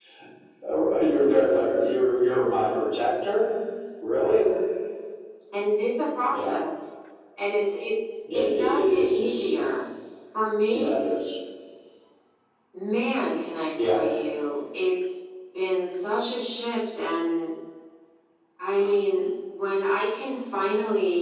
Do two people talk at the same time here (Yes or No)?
Yes